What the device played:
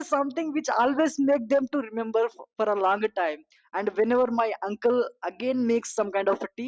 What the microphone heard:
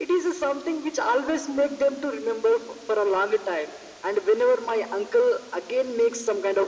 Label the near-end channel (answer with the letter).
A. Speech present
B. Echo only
B